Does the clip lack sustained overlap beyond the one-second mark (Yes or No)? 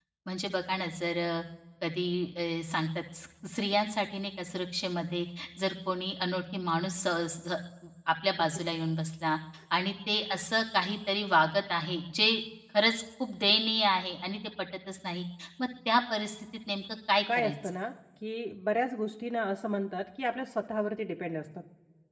Yes